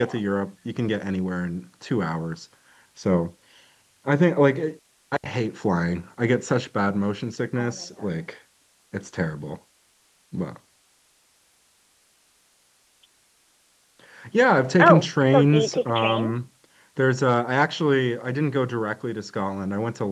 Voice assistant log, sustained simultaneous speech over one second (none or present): present